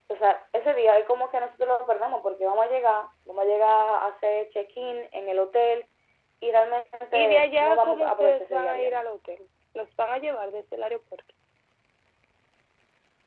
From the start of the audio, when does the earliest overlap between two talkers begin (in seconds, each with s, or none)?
7.1 s